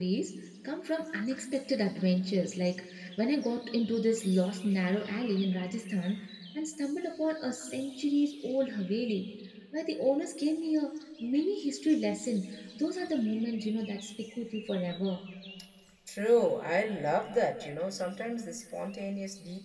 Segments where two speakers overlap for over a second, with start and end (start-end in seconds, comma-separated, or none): none